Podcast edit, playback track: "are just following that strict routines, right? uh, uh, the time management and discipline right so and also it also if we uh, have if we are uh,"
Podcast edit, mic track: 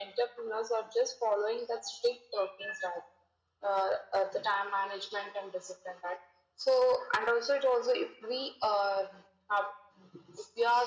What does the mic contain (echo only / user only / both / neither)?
echo only